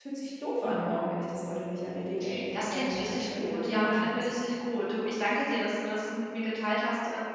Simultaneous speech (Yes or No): Yes